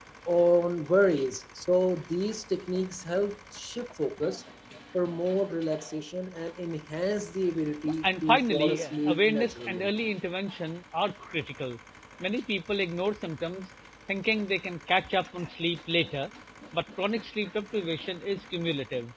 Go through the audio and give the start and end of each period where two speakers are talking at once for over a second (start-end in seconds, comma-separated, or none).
8.0-9.9